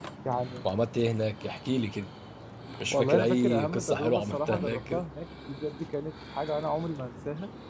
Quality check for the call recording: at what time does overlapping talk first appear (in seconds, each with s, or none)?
2.9 s